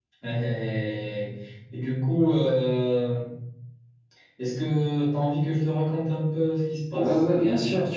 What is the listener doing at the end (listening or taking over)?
taking over